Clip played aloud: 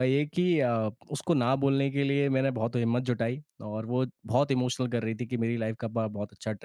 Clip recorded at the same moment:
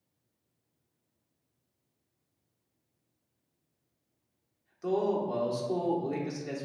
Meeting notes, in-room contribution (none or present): present